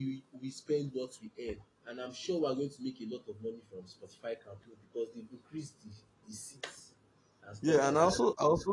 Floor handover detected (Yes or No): Yes